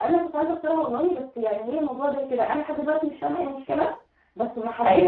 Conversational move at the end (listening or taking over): listening